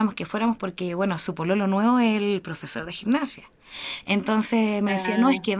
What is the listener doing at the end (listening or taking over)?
listening